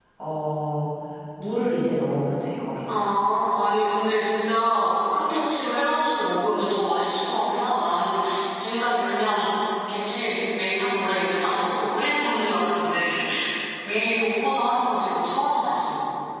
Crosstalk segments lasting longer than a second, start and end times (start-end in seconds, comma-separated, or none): none